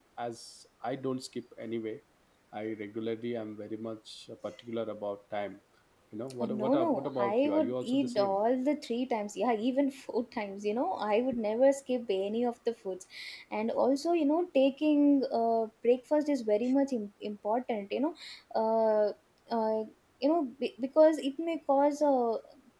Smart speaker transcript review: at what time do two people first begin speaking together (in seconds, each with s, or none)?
6.4 s